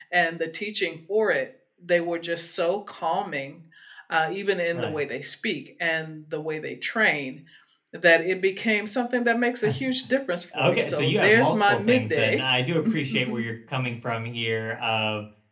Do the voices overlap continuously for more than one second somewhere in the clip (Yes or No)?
Yes